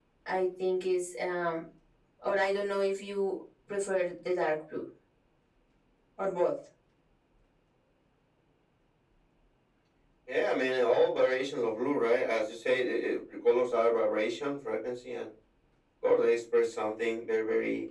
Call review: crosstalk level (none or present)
none